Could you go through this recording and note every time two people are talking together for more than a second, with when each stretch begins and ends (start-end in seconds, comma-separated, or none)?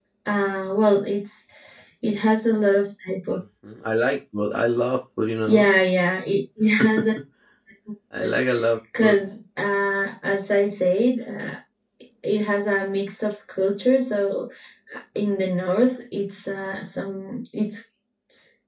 none